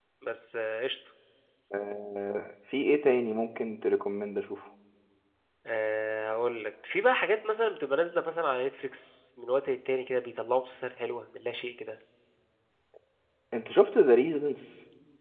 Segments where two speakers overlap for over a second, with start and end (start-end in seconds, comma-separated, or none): none